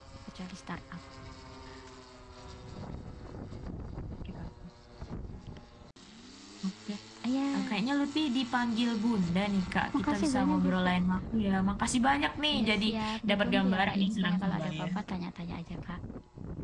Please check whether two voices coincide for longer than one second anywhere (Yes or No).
Yes